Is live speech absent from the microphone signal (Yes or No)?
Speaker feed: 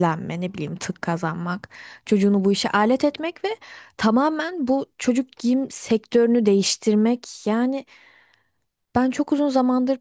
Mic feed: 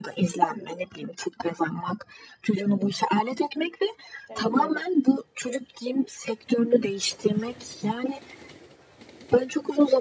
No